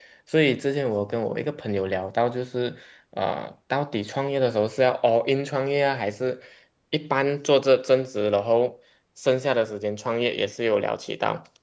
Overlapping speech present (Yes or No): No